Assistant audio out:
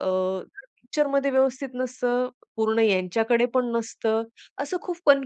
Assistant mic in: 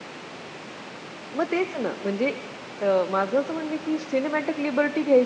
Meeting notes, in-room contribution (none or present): present